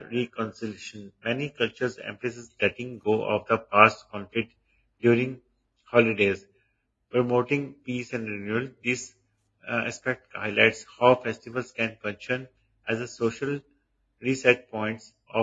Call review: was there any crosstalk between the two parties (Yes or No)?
No